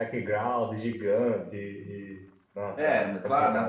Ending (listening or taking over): taking over